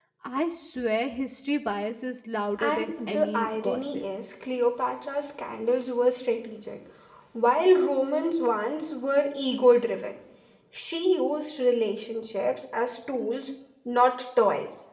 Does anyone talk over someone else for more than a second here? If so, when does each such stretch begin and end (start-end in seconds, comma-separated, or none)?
2.6-4.0